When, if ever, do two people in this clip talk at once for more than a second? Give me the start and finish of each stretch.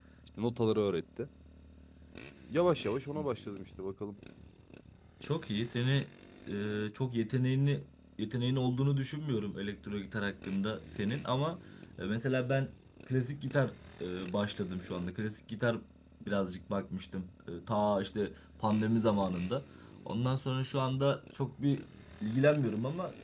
none

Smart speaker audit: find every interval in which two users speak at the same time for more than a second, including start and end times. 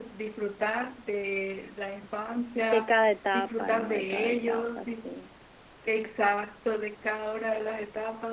3.3-5.1

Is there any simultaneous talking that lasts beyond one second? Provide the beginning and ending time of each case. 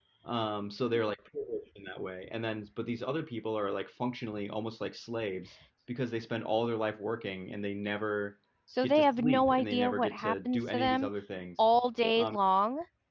8.8-11.1

